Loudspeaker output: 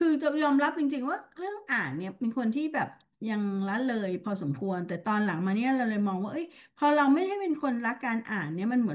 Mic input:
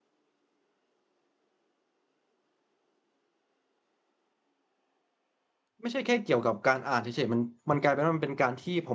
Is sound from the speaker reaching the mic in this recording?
No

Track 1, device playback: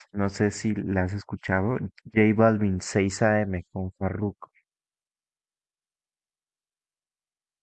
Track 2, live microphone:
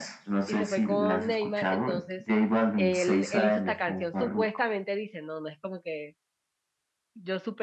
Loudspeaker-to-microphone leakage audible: Yes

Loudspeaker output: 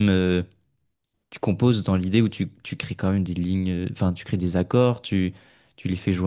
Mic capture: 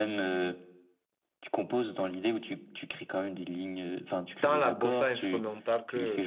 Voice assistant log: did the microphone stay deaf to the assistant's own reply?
No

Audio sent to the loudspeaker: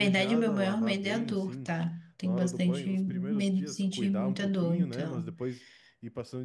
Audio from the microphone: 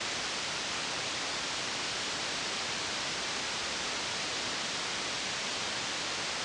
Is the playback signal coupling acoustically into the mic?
No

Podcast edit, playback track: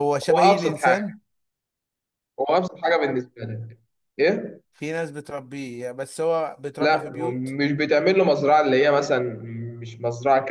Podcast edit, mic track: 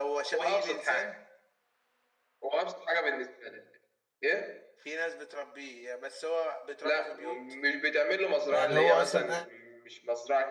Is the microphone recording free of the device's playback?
No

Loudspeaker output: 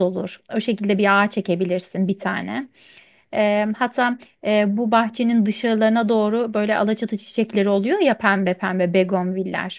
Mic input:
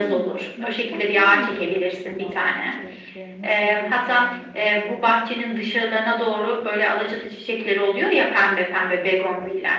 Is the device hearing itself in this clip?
Yes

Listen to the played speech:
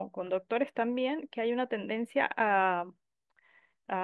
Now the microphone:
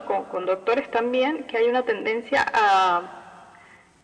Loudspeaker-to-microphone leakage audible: Yes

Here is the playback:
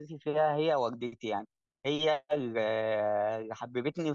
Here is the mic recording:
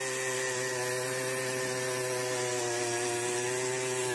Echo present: No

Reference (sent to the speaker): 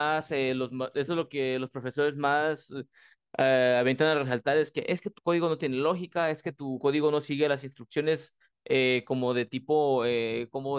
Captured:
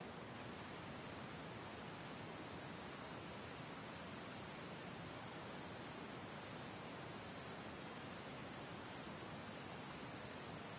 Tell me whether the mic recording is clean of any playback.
Yes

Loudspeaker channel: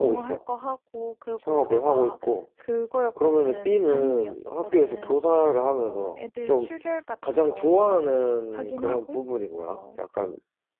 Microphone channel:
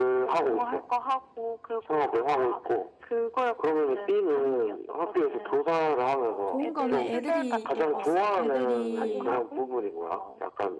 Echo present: Yes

